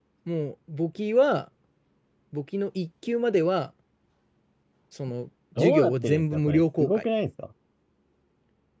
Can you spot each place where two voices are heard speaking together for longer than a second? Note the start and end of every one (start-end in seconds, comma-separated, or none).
5.6-7.1